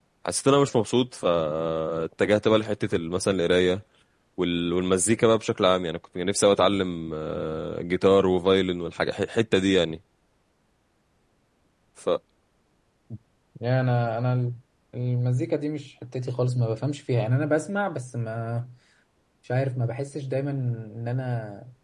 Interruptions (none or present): none